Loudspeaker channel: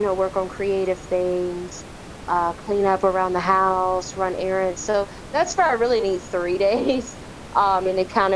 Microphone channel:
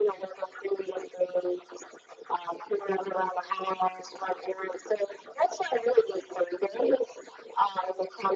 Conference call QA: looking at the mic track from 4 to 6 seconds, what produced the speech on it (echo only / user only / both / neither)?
echo only